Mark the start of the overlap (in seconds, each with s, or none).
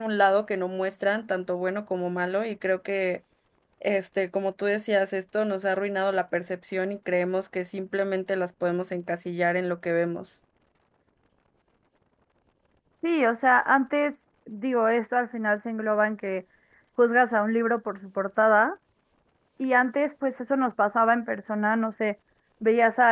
none